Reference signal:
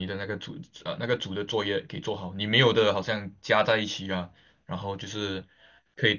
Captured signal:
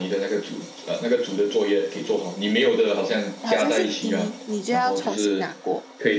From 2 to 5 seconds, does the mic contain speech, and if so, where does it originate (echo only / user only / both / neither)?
both